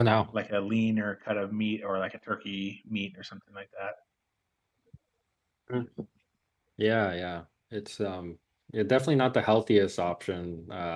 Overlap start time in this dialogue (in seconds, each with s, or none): none